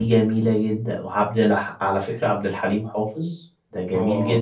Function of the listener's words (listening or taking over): taking over